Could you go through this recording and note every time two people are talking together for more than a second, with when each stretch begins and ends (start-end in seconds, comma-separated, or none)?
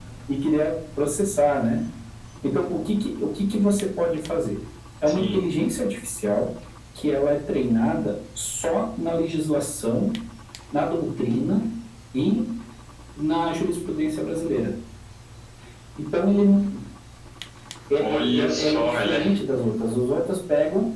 18.0-19.4